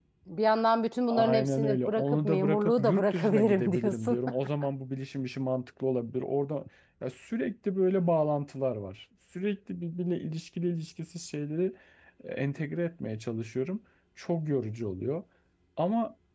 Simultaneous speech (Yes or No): Yes